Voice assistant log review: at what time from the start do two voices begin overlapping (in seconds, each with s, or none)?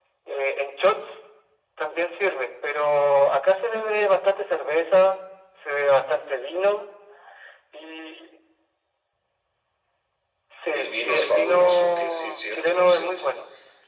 10.7 s